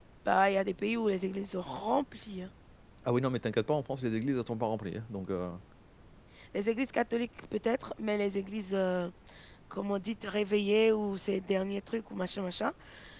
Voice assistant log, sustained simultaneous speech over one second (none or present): none